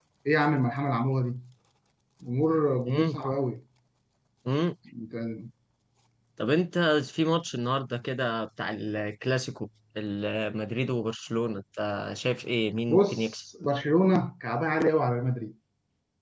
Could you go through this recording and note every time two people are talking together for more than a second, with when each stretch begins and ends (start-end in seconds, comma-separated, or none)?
none